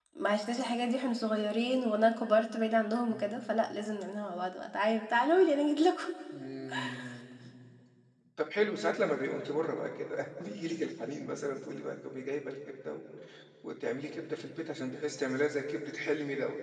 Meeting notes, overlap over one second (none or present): none